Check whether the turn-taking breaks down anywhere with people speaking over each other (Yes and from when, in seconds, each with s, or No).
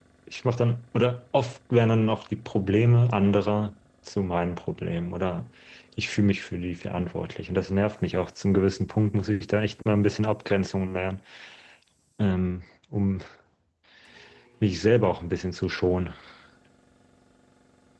No